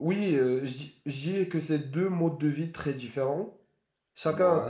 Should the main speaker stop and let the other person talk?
No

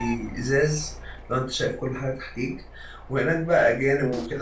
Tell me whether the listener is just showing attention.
Yes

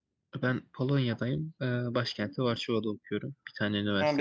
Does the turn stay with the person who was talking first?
No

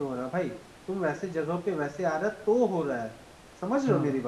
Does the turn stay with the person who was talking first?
No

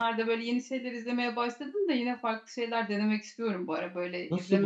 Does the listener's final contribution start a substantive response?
Yes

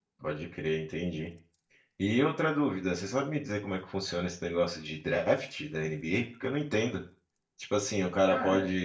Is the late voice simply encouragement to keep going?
Yes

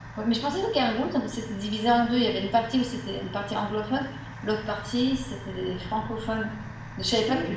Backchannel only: Yes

